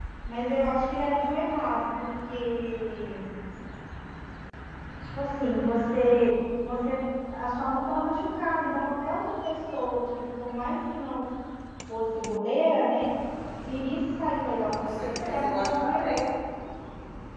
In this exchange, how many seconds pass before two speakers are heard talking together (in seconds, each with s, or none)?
14.8 s